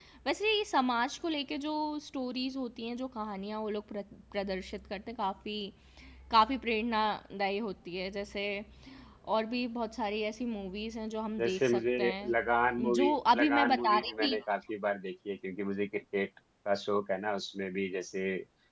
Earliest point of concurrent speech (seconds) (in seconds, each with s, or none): 11.4 s